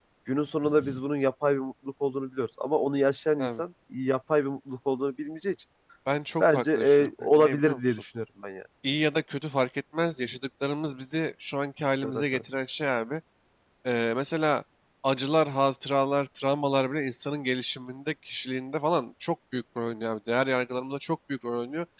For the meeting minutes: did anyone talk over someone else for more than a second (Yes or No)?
Yes